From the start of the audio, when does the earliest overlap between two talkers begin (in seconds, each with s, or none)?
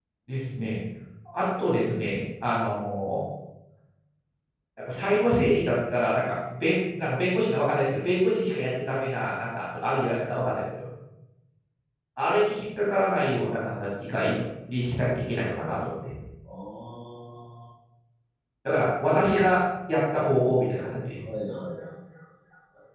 none